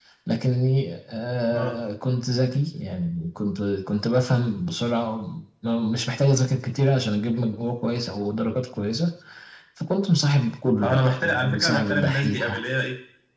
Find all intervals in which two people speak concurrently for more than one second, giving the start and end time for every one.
10.8-12.6

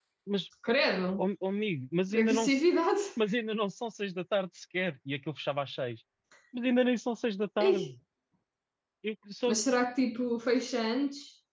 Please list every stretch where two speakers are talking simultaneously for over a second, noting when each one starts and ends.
none

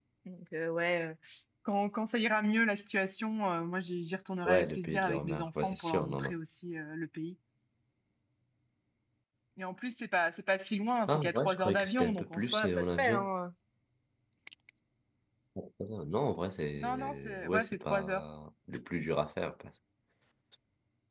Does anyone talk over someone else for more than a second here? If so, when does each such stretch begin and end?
4.4-6.3, 11.1-13.3, 16.8-18.2

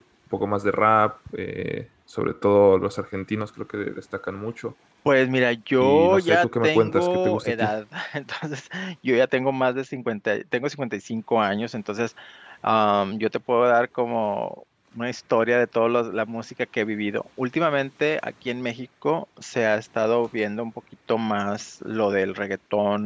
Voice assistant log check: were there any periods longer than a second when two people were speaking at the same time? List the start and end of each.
5.8-7.7

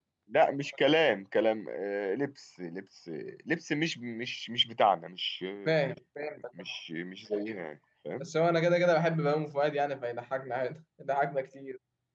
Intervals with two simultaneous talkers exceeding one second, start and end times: none

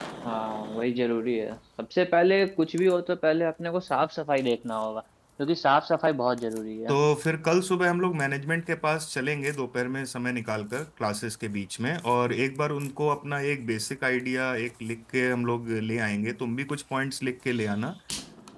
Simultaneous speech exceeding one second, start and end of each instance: none

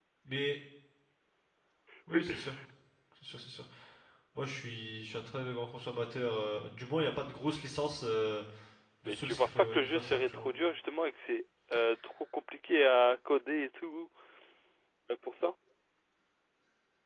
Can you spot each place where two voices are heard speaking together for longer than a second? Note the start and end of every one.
9.1-10.5

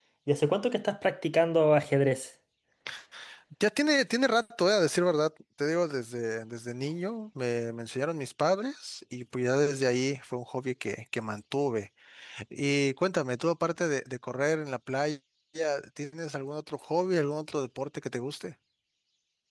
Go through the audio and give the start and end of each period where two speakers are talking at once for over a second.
none

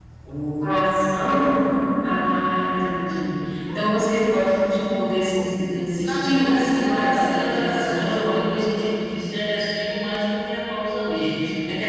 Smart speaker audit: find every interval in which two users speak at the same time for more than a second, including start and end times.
6.0-8.5

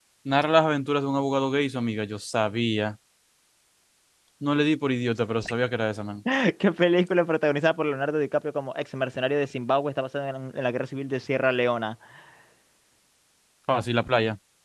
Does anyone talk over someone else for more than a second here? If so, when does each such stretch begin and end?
none

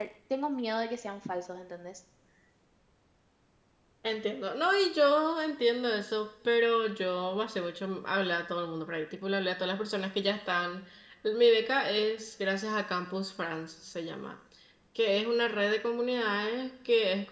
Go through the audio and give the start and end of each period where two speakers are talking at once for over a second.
none

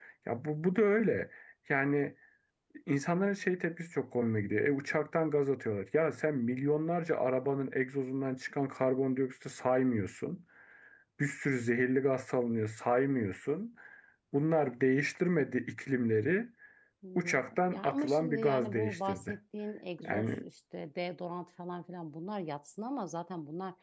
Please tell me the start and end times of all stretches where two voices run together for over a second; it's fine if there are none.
17.1-19.4

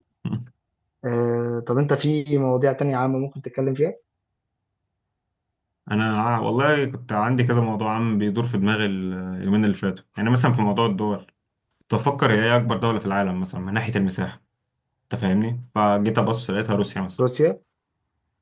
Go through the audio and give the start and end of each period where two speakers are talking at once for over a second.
none

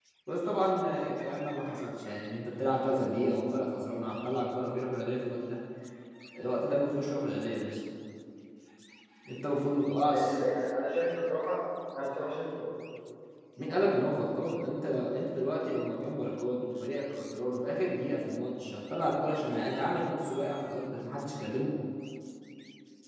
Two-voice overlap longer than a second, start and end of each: none

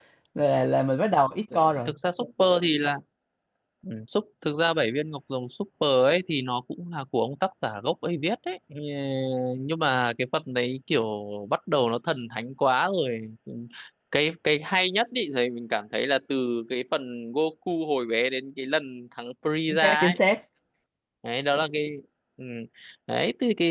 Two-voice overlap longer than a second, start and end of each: none

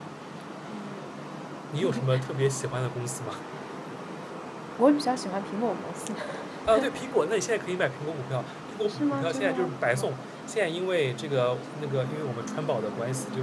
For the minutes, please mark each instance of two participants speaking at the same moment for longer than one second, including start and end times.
8.9-10.2

